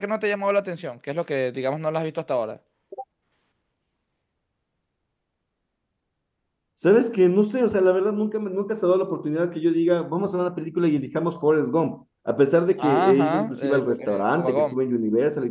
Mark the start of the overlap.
12.8 s

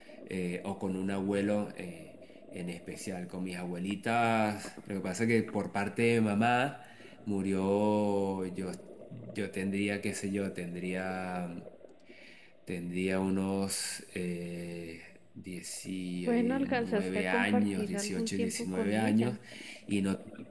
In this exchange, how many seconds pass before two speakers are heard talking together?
16.3 s

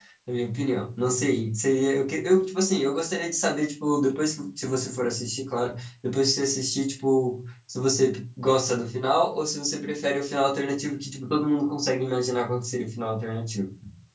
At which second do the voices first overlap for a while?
none

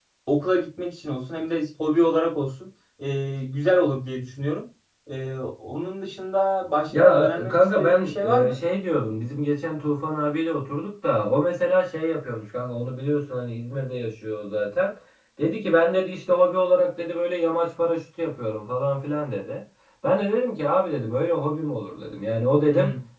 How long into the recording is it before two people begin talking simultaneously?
6.9 s

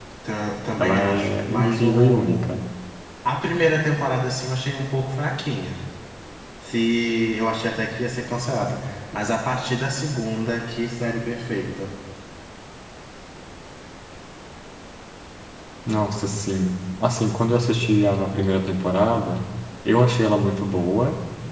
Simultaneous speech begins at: 0.8 s

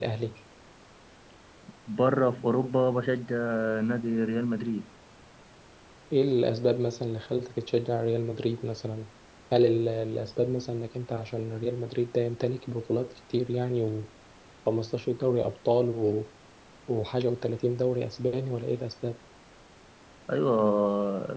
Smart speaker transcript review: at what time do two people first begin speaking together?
none

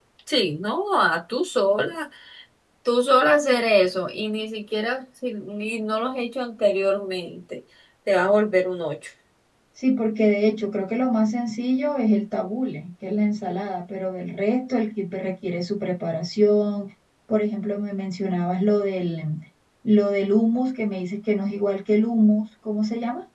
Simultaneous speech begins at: none

